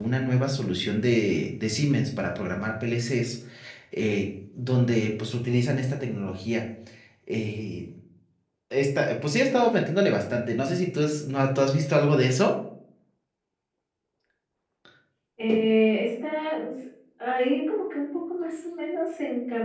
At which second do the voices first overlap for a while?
none

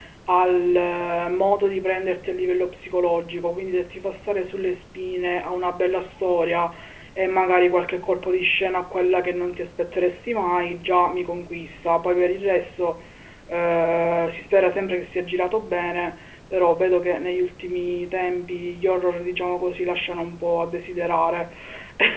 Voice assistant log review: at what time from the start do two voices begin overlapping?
none

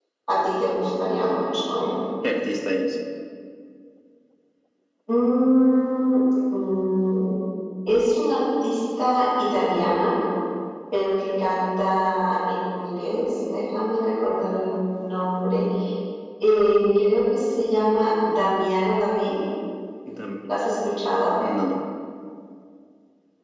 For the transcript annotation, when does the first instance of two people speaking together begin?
none

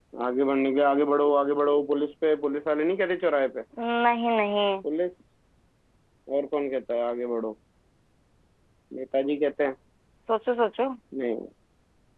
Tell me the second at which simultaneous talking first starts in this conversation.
none

